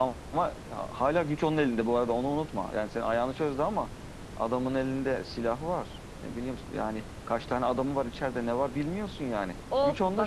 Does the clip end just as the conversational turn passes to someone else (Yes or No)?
Yes